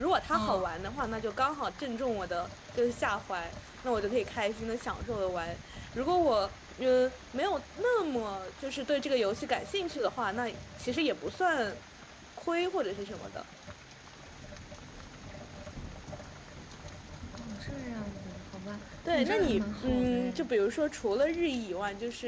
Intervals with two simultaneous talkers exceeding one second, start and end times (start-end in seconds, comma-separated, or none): 19.1-20.5